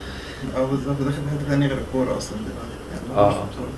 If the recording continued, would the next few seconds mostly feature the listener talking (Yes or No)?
Yes